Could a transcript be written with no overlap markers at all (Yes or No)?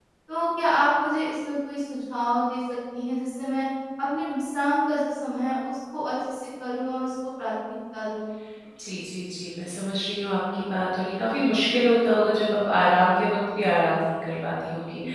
Yes